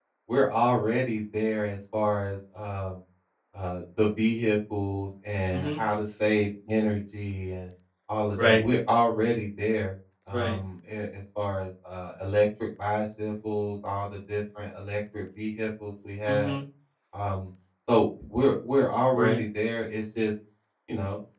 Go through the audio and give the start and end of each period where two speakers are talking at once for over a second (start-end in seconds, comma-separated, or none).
none